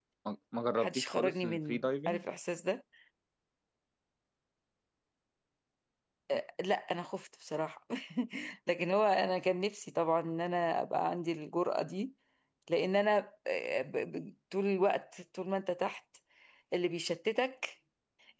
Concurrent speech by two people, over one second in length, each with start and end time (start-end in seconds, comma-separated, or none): 0.8-2.2